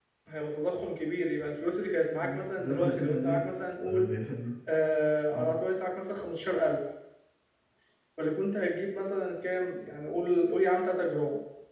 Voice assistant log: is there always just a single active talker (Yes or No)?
No